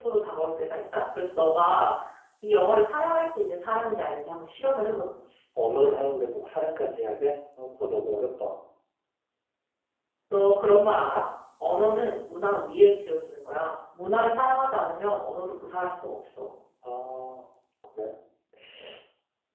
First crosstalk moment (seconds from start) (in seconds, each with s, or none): none